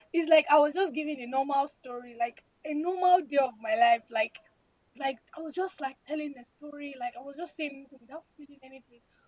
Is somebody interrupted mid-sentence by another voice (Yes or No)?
No